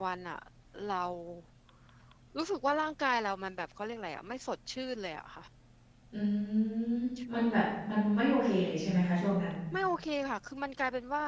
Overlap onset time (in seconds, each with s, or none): none